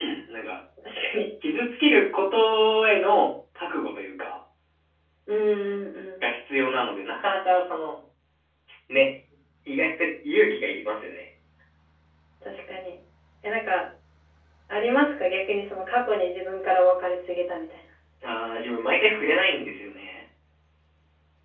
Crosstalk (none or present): none